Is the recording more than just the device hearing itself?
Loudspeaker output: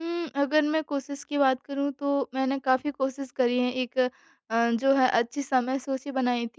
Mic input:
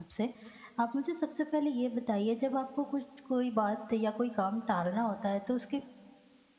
Yes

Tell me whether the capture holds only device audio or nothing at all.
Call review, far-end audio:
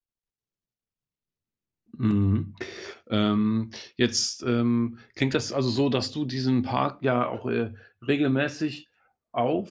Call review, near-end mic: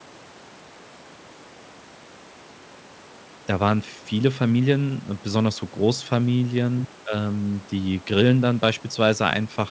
No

